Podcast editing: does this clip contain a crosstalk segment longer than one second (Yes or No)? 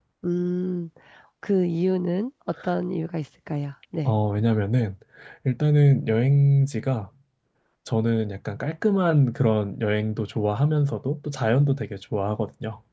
No